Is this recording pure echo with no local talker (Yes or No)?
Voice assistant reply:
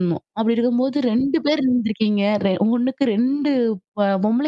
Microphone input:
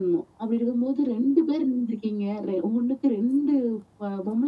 Yes